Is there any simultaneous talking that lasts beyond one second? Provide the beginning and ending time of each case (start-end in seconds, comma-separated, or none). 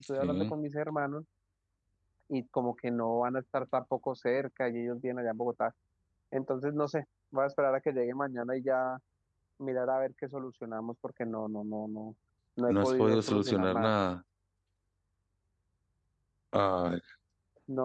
12.7-13.9